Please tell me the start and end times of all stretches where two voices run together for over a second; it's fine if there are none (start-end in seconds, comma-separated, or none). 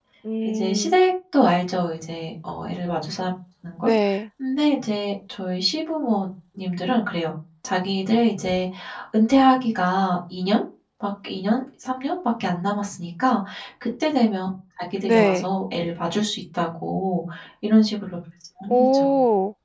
none